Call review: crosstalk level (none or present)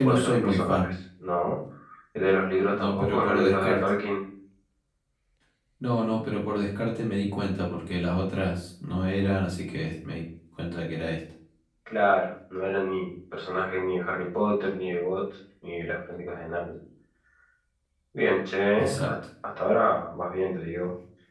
present